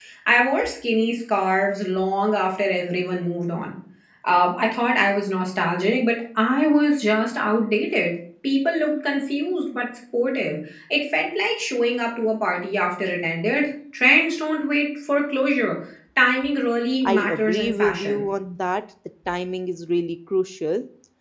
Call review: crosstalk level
present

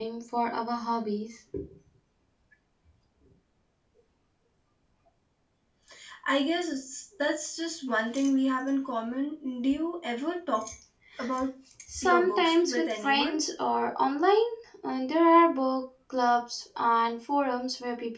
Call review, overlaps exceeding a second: present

